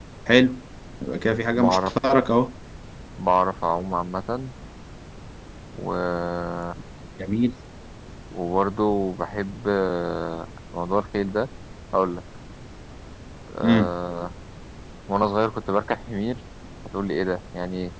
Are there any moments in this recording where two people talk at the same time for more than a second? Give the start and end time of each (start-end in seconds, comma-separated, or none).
none